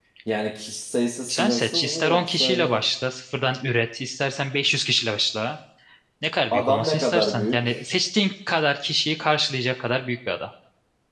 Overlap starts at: 1.3 s

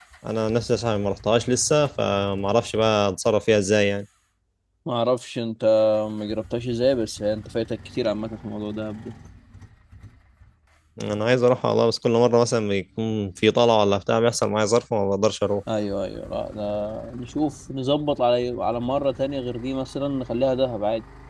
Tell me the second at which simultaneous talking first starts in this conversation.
none

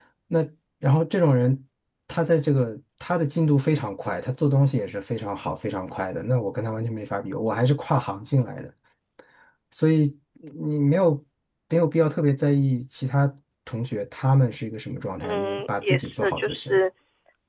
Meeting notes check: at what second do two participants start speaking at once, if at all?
15.2 s

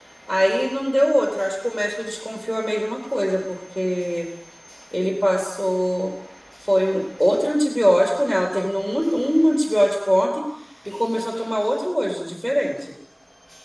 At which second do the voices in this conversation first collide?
none

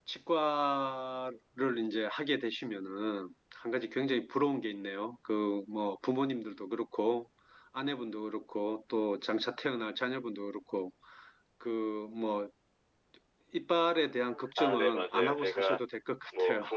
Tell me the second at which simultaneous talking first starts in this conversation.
14.6 s

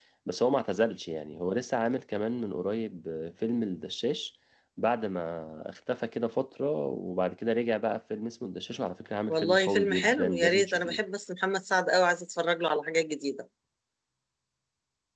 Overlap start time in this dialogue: 9.3 s

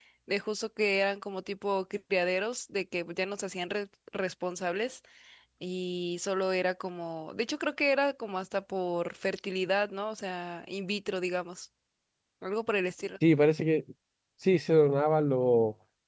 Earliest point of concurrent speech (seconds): none

